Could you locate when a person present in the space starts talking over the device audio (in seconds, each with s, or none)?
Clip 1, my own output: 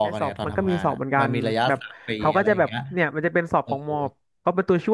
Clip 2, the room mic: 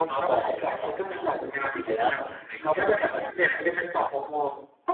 none